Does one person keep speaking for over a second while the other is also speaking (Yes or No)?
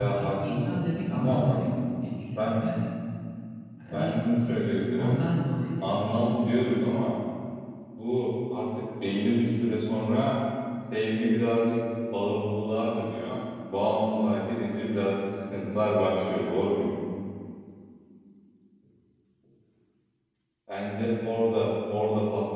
Yes